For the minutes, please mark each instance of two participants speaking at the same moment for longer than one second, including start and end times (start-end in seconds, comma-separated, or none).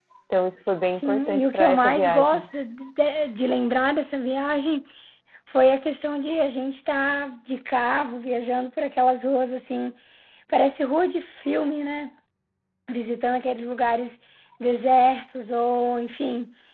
0.8-2.4